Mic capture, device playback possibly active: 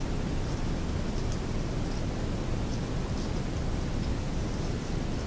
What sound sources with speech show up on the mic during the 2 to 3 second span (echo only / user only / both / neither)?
neither